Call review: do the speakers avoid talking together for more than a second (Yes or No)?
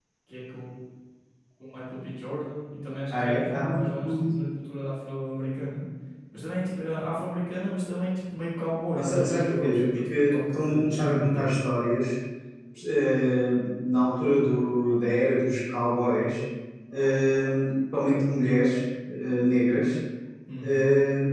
No